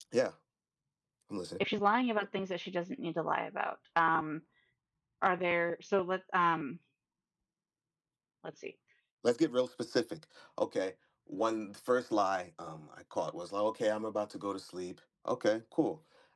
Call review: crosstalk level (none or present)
none